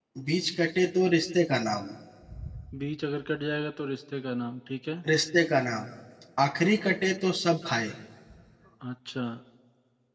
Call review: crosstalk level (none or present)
none